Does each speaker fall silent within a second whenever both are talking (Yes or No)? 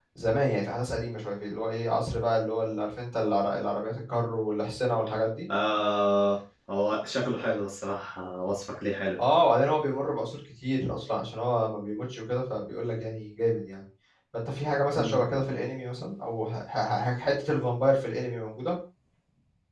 Yes